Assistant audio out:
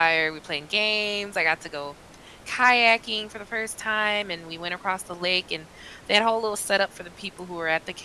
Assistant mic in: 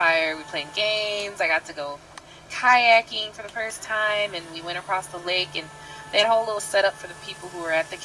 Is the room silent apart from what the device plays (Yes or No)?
Yes